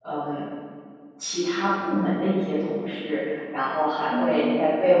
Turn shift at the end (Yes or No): No